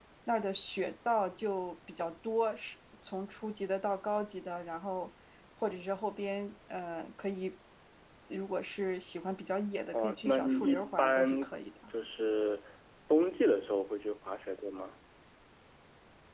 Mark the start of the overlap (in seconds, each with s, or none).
9.9 s